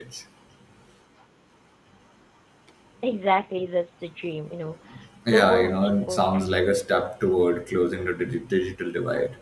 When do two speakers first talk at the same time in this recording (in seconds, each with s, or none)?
5.3 s